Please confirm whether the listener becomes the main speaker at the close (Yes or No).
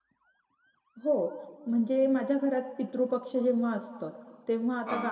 No